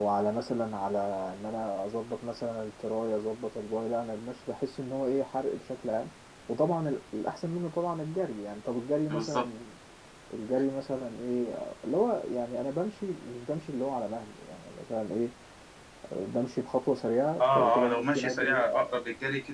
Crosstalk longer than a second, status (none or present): present